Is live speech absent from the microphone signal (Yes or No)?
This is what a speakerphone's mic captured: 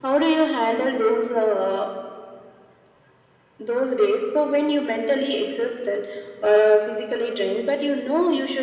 Yes